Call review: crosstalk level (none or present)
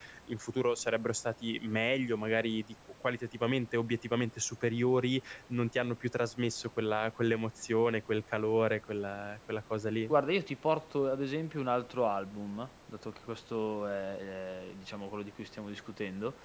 none